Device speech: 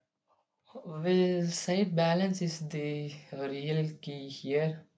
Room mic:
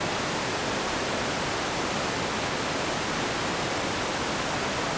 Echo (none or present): none